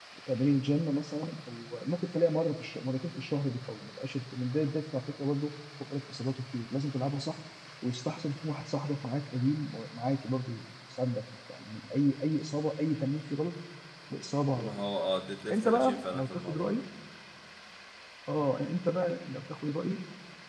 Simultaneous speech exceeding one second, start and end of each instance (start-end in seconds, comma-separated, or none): 15.5-16.8